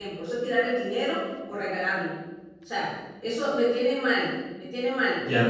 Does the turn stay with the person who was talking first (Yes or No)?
No